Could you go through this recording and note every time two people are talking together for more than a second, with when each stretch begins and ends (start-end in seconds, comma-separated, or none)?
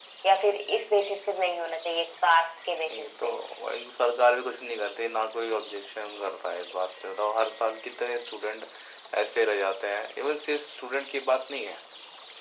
none